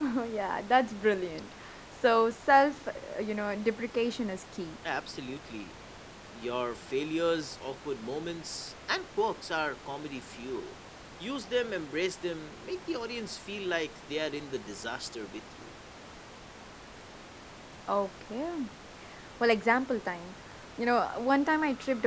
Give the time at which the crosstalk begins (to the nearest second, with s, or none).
none